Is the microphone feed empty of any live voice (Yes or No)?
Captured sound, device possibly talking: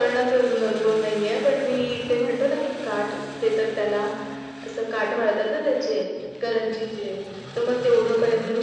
Yes